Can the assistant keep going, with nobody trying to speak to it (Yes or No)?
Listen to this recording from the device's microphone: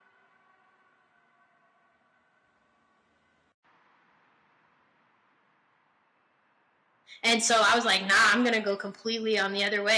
No